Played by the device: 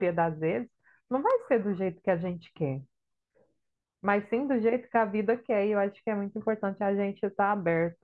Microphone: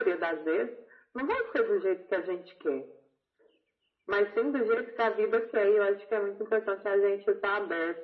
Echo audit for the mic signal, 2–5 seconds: echo only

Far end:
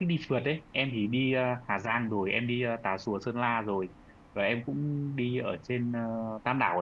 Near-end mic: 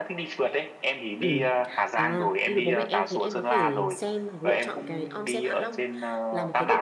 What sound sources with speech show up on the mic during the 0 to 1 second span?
echo only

